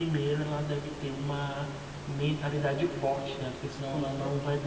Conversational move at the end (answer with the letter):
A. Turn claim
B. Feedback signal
B